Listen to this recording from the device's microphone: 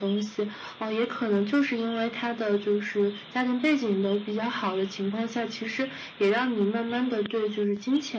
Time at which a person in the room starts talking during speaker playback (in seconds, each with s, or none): none